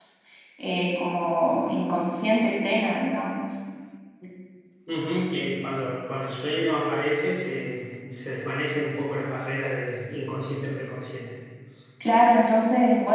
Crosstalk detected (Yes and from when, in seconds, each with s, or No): No